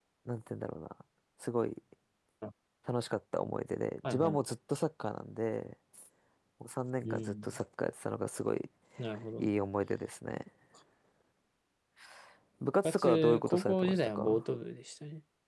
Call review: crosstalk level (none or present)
present